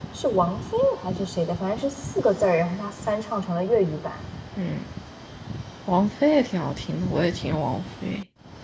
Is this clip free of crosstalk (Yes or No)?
Yes